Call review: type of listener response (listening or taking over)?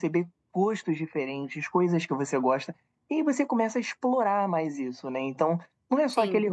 listening